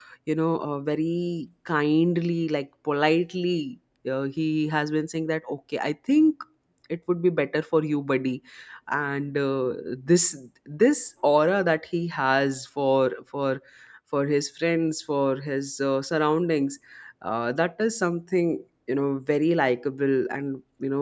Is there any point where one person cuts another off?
No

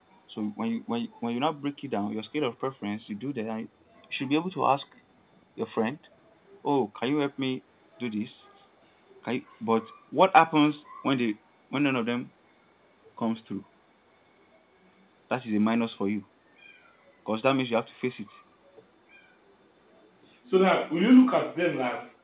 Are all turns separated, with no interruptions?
Yes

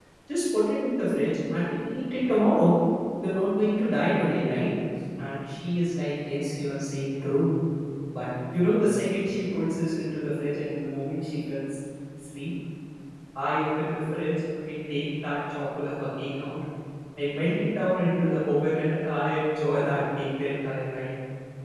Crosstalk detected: No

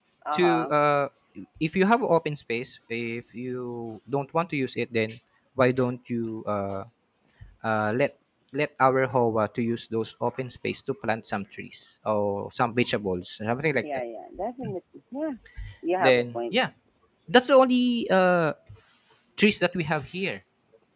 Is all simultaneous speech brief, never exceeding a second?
Yes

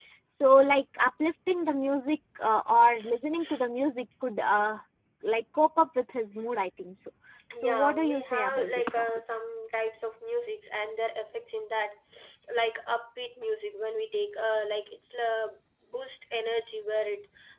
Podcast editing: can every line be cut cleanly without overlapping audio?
No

